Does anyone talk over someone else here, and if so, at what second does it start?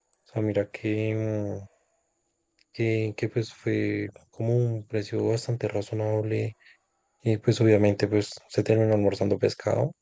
none

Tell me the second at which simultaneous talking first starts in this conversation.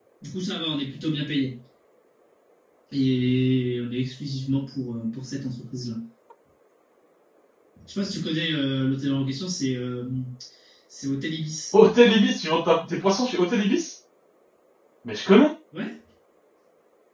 none

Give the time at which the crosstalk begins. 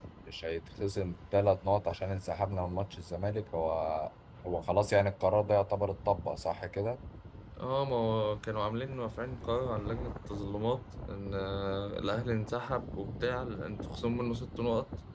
none

